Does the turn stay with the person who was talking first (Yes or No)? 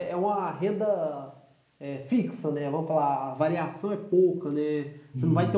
Yes